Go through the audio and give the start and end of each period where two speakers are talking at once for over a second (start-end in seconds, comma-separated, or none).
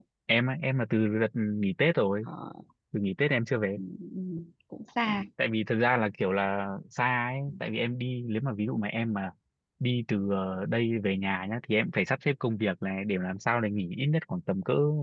none